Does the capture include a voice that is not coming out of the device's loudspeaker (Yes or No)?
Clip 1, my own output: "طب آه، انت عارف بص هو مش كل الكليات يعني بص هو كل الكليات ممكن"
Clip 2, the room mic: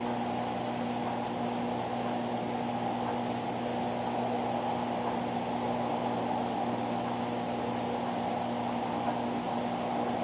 No